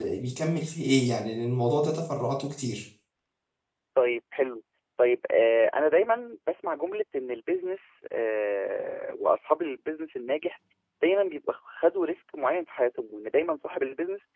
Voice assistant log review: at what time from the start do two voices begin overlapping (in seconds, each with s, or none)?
none